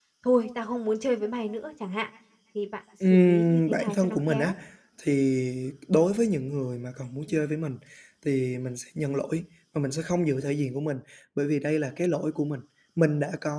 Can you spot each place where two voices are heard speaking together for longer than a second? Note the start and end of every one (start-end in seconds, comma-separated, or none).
3.1-4.5